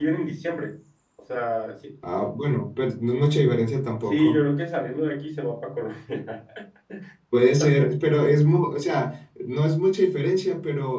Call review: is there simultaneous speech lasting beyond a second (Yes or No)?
No